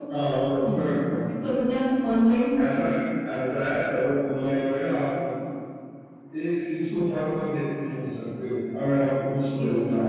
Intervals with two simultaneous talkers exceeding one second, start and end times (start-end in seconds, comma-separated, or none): none